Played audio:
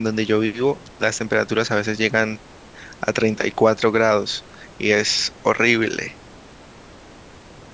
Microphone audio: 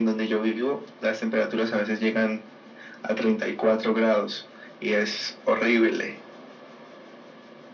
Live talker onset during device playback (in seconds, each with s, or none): none